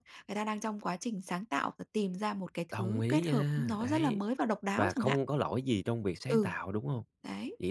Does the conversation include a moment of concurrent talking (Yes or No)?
Yes